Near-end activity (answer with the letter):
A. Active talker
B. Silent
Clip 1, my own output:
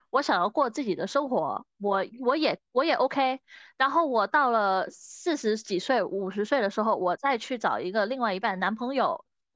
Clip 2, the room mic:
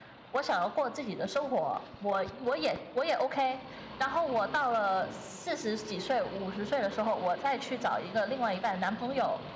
B